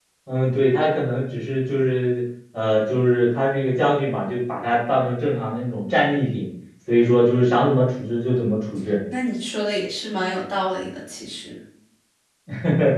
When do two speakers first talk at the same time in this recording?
none

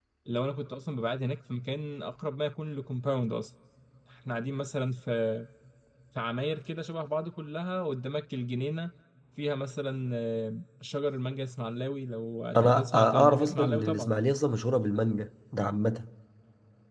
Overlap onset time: 12.5 s

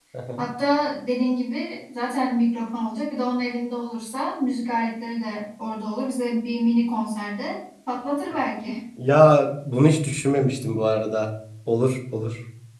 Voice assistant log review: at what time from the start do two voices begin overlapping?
none

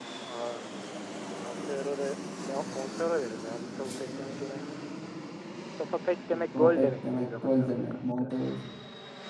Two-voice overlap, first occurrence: 6.3 s

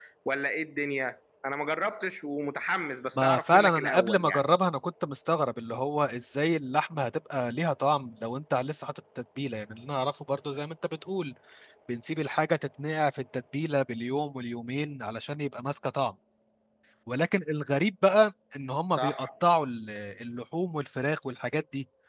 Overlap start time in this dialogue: 3.1 s

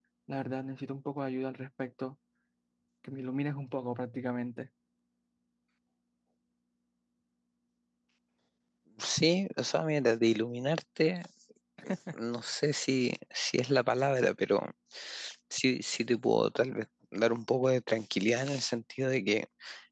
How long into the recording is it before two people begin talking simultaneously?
none

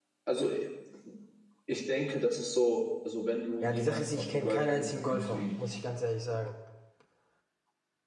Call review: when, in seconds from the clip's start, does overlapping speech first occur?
3.6 s

